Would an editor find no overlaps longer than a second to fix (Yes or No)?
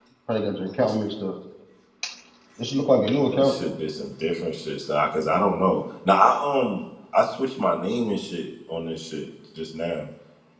Yes